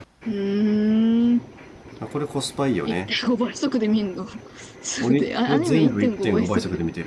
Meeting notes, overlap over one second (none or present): present